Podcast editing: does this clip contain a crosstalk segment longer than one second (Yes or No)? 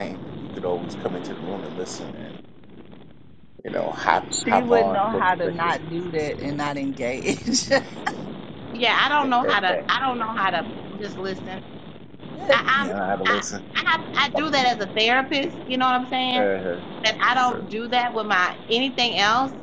Yes